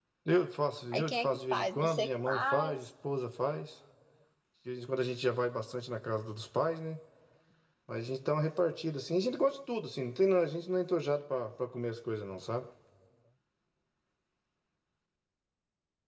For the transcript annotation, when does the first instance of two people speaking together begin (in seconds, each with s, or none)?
0.9 s